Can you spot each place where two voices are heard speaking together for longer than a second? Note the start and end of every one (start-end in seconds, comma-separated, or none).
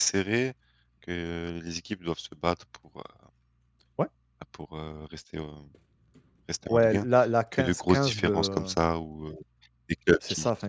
7.5-8.7